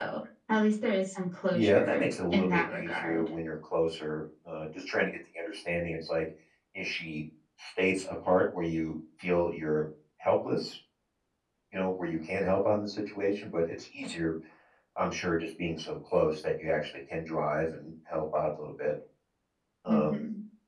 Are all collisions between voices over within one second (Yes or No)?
No